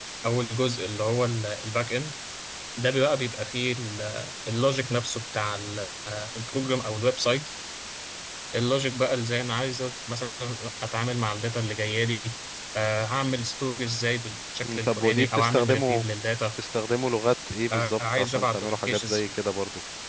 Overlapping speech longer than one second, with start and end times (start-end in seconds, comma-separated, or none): 14.6-16.0, 17.7-19.2